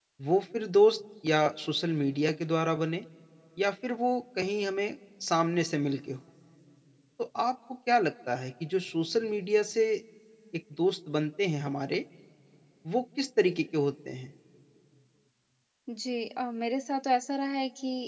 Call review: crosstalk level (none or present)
none